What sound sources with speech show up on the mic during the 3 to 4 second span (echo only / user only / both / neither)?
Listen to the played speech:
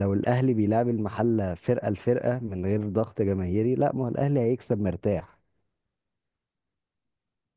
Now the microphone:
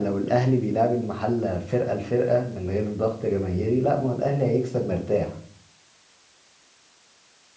echo only